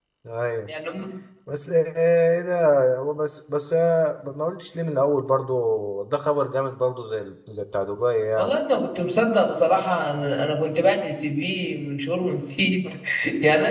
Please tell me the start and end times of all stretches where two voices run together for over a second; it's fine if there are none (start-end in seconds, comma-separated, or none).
none